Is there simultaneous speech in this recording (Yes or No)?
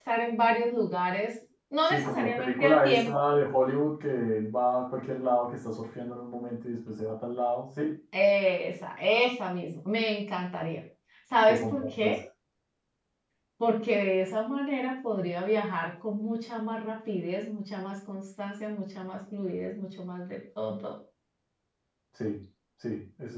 Yes